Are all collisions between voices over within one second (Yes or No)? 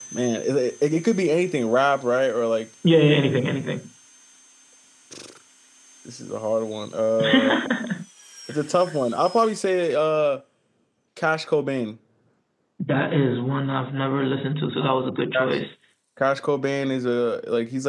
Yes